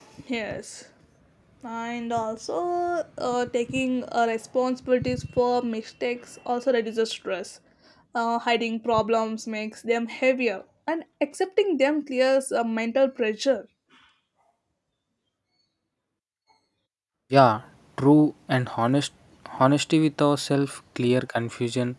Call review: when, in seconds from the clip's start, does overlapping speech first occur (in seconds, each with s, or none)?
none